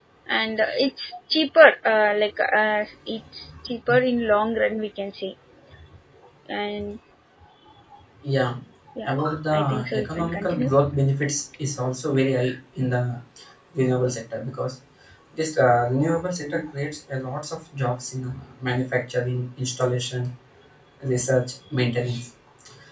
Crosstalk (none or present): present